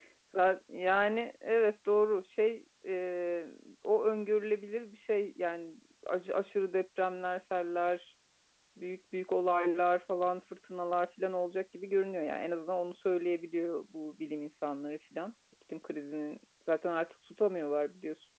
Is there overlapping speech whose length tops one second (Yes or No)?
No